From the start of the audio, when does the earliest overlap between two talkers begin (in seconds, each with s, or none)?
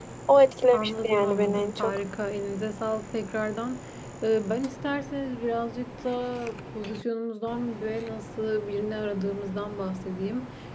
0.7 s